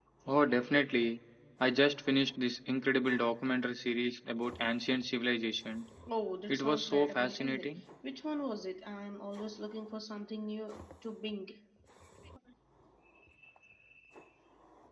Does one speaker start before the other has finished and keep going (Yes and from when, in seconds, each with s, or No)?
Yes, from 6.5 s